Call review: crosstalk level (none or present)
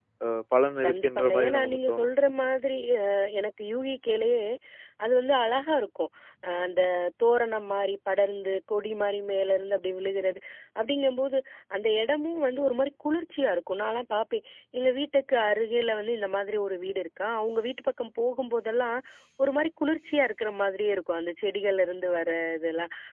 present